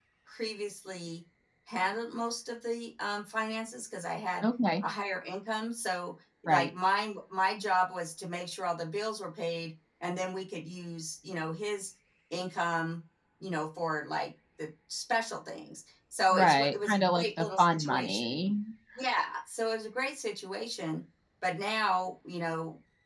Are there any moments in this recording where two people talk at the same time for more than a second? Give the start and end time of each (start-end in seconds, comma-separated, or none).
16.3-18.4